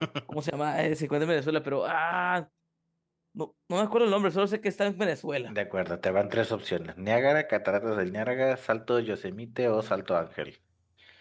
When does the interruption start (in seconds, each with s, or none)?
none